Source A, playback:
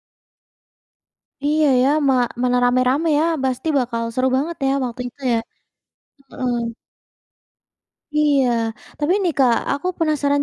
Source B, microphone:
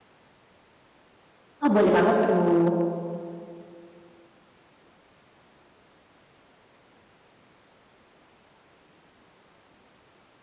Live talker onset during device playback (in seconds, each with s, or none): 1.6 s